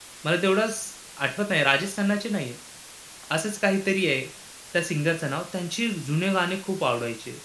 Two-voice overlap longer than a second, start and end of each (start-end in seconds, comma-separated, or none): none